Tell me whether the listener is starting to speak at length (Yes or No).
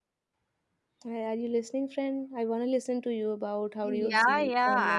Yes